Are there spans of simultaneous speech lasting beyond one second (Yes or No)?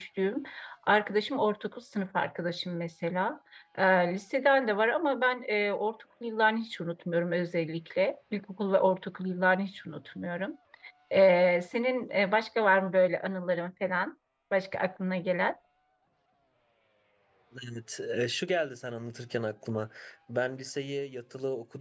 No